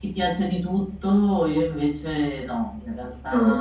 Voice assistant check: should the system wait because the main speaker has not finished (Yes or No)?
Yes